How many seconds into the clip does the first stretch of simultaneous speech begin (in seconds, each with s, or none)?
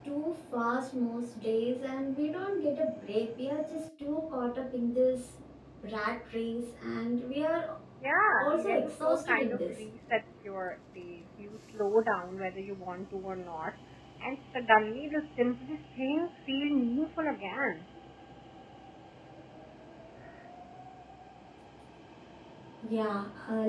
8.4 s